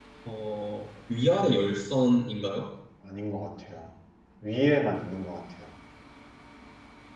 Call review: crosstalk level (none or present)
none